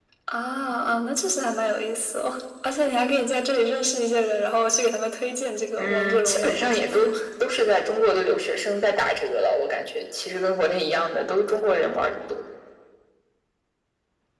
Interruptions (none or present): present